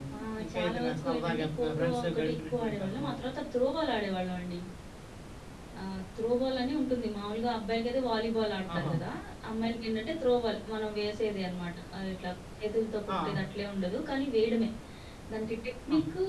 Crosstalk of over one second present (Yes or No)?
Yes